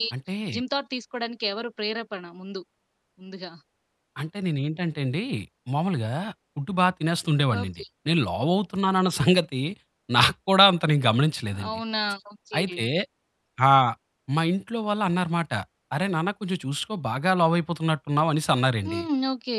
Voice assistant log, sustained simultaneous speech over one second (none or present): none